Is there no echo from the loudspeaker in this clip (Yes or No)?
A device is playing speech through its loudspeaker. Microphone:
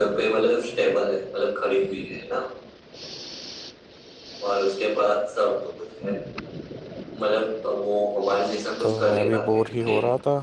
No